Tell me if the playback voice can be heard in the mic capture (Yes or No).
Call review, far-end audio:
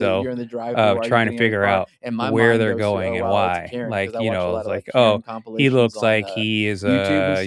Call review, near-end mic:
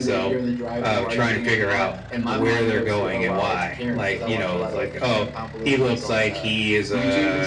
Yes